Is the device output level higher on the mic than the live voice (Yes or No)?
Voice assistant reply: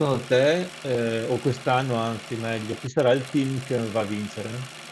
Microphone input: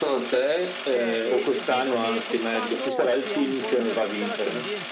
Yes